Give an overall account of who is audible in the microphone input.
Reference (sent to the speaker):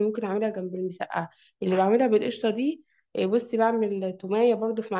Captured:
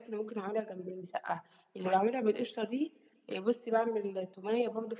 echo only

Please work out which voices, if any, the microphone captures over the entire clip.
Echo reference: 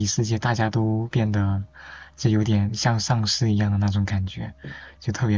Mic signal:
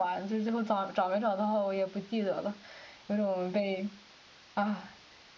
user only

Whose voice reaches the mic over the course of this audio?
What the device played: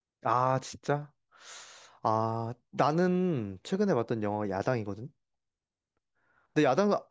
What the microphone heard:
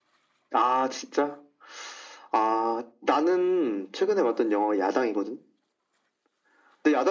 echo only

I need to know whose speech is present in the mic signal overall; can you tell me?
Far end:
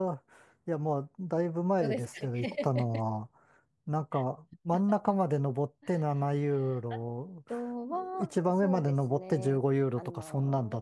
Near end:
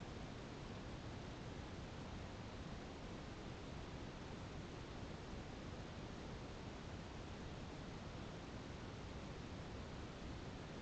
neither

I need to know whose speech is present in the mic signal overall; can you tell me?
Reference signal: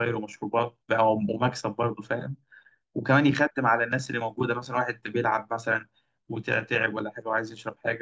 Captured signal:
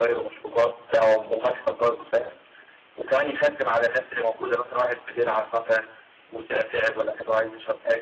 echo only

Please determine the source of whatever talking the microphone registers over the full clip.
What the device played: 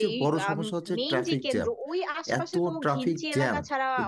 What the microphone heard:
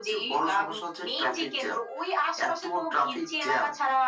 echo only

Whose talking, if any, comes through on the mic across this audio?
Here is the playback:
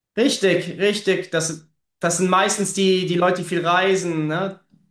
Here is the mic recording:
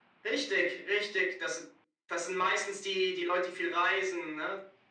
echo only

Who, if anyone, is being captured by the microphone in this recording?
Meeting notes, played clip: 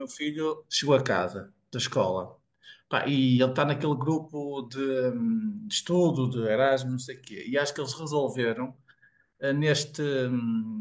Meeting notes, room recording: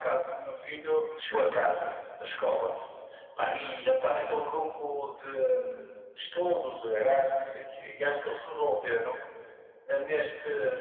both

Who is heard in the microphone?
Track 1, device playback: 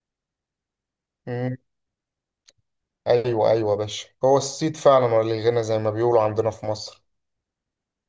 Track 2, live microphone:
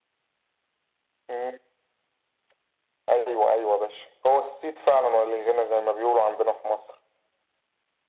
echo only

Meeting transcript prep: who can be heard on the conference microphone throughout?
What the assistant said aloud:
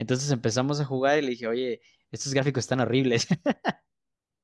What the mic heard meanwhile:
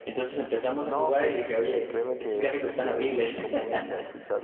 both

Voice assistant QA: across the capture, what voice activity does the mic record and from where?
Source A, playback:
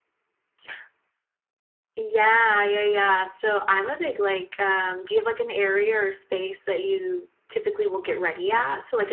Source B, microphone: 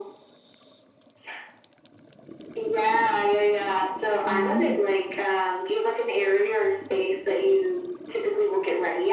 both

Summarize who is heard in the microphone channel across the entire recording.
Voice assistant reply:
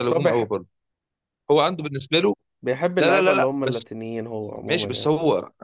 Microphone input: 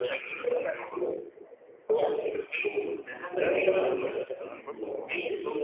both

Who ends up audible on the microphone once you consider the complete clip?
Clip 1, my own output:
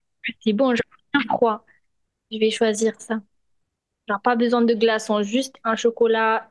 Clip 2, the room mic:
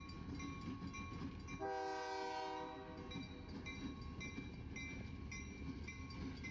neither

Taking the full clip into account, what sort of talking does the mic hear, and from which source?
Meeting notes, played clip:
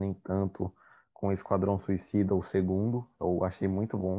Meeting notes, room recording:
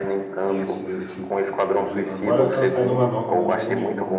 both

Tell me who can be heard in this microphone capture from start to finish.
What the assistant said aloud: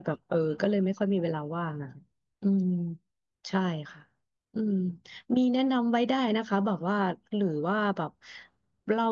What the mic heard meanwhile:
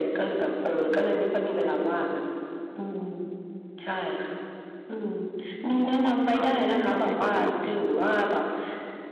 both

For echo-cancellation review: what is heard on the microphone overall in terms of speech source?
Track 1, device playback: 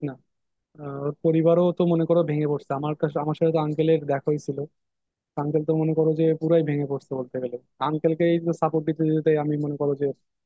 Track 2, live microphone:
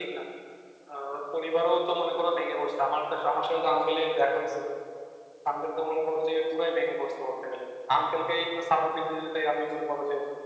echo only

